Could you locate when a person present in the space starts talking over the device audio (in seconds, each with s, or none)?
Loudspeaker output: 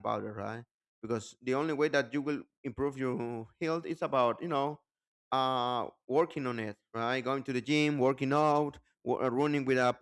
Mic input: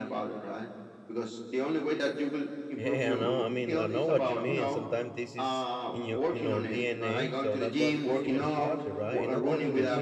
2.8 s